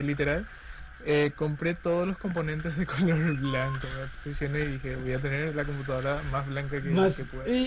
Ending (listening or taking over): taking over